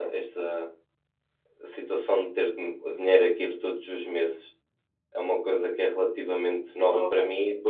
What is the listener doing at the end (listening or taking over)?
listening